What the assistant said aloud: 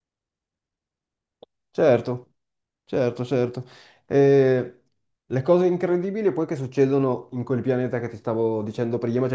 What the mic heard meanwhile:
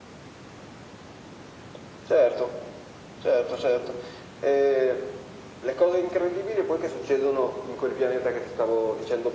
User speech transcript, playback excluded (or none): none